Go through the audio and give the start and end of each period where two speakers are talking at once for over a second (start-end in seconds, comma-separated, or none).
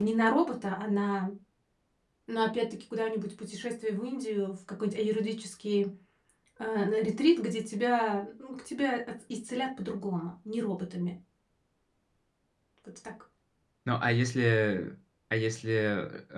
none